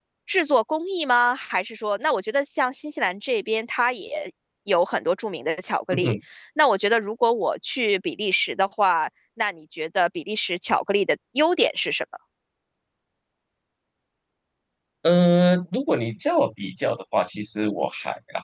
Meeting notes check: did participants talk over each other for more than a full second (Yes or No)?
No